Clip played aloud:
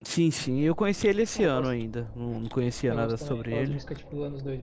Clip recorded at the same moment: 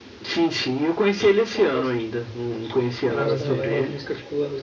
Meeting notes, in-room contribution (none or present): present